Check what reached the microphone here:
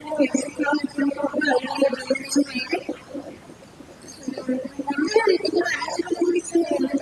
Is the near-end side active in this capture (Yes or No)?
No